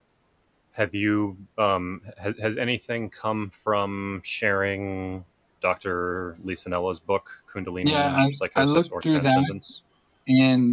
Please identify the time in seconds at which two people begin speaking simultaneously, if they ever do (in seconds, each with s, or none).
7.8 s